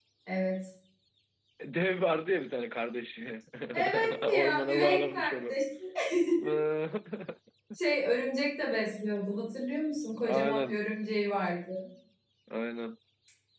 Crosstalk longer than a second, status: present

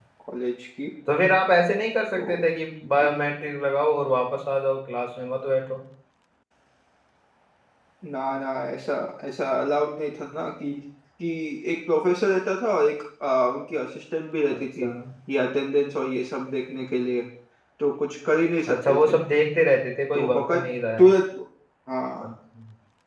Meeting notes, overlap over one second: none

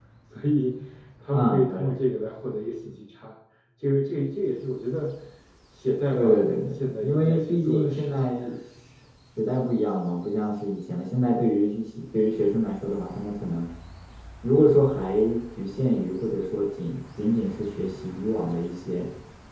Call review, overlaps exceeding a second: present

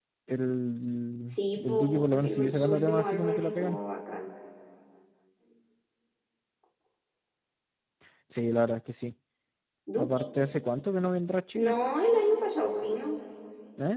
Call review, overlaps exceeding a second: present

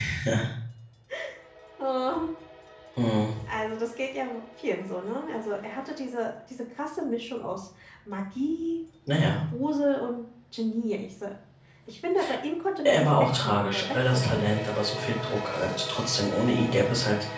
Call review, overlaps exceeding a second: present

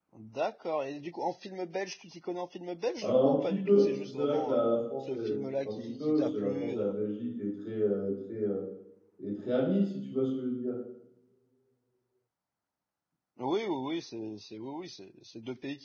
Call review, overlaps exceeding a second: present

